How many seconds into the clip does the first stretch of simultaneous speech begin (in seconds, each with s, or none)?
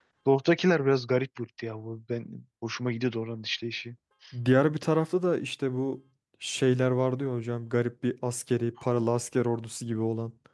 none